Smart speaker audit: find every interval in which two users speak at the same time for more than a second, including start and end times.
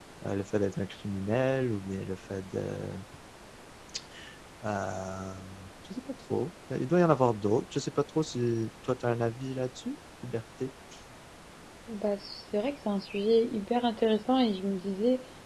none

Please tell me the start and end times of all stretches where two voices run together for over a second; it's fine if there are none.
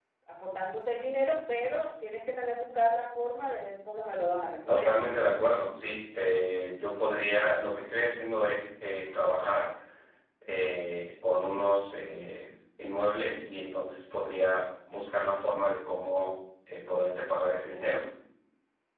none

